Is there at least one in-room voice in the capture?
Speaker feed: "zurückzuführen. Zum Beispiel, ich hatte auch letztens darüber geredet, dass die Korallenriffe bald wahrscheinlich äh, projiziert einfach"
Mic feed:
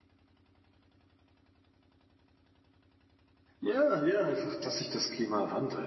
Yes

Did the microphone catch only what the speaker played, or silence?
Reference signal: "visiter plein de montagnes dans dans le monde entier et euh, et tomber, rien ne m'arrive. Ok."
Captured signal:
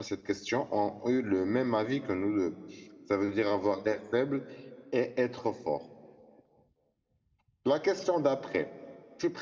No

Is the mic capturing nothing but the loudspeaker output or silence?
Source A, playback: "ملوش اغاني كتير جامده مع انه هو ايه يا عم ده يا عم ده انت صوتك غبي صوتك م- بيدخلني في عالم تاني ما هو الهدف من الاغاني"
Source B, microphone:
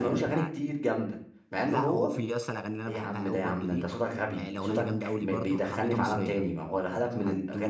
No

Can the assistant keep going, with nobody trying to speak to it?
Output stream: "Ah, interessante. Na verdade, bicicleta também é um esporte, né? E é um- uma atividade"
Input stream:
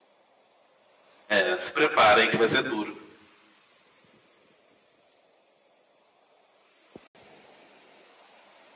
No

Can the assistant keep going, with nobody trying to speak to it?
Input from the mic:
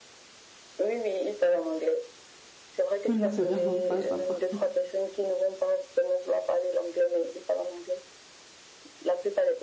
No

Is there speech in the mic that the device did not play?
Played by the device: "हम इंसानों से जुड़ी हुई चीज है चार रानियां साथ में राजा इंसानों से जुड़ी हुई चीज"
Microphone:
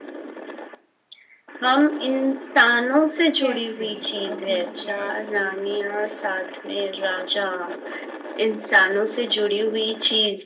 Yes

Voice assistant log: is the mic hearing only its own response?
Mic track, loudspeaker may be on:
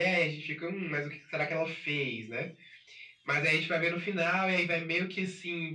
Yes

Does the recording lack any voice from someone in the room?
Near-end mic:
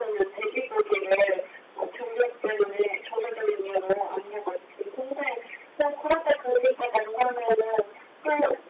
Yes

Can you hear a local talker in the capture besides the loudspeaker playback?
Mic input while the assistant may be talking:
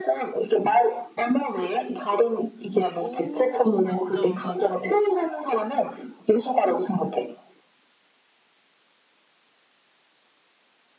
Yes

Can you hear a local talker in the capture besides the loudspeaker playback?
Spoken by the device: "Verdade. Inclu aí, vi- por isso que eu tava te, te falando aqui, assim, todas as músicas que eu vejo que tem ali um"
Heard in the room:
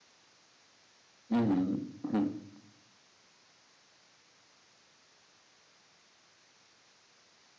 Yes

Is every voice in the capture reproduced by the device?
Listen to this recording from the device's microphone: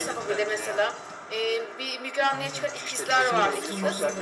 No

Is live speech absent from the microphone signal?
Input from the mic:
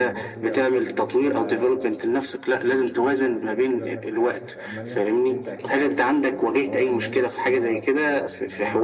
No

